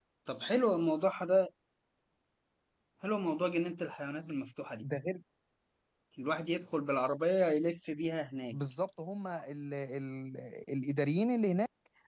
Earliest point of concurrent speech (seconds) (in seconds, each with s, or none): none